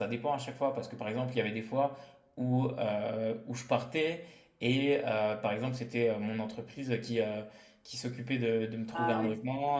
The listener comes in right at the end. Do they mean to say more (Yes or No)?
No